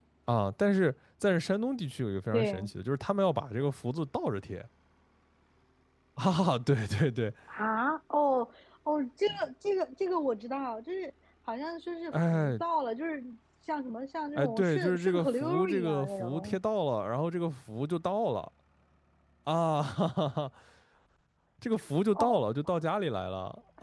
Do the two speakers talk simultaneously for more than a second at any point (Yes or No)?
Yes